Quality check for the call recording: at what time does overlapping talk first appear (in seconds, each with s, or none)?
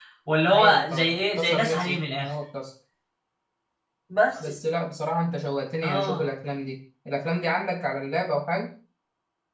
0.5 s